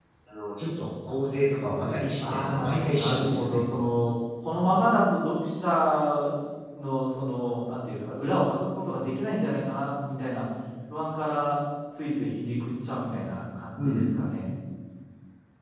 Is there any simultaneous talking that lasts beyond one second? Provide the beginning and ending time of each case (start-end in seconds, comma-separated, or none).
2.3-3.6